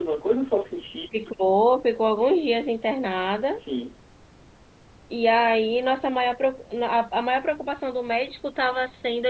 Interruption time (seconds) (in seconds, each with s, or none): none